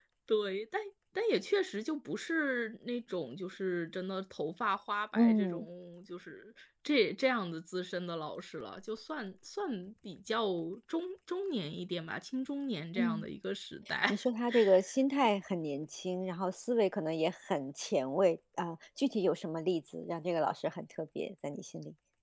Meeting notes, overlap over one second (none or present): none